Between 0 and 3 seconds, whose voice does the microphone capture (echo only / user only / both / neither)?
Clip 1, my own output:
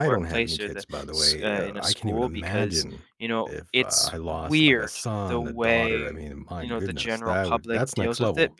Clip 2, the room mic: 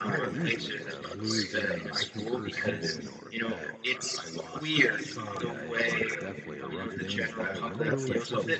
both